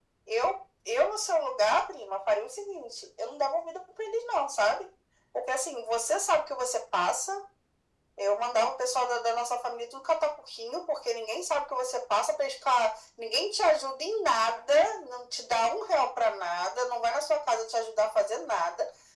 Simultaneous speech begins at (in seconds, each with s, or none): none